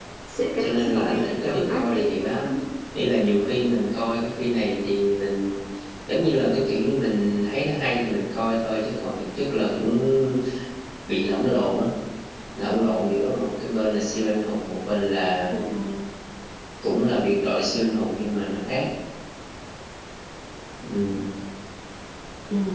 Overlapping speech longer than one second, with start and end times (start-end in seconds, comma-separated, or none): 0.6-2.5